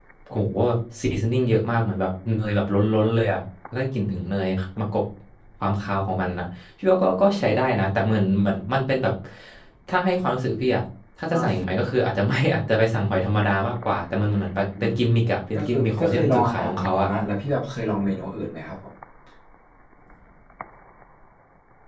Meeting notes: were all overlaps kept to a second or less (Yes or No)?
No